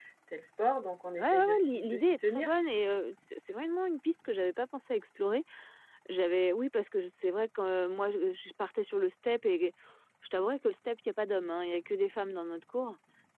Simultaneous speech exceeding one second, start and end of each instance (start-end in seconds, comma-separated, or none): 1.1-2.5